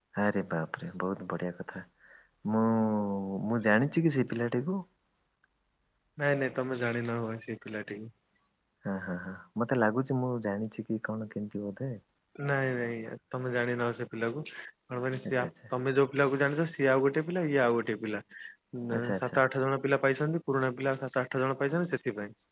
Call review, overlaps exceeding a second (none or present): none